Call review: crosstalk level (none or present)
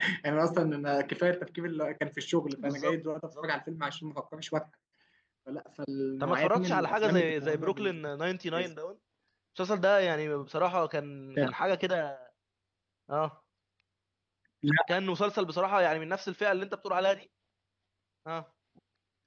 present